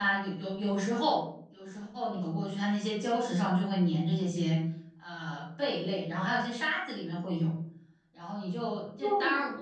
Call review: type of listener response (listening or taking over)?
listening